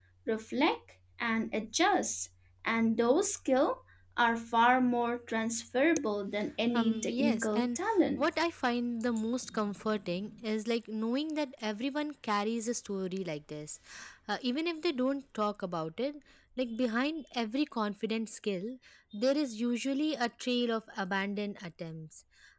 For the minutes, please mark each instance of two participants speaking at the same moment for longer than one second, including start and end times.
6.7-8.3

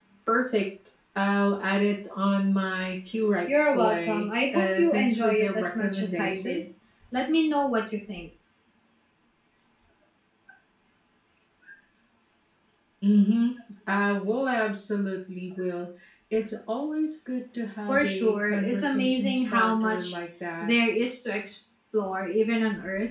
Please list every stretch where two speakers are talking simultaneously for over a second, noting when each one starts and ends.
3.5-6.6, 17.9-20.1

